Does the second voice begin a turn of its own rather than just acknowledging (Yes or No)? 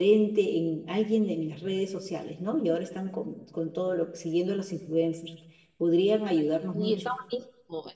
Yes